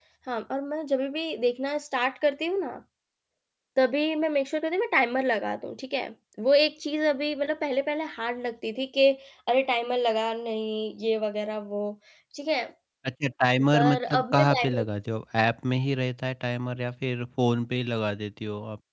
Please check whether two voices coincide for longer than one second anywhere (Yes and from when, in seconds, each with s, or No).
Yes, from 13.6 s